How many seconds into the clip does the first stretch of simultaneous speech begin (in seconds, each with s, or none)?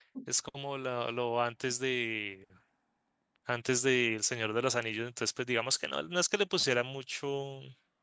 none